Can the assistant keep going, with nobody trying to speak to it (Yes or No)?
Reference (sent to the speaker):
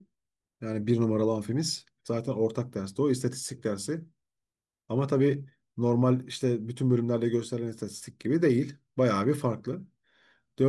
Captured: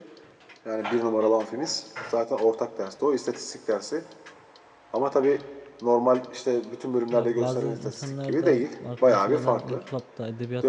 No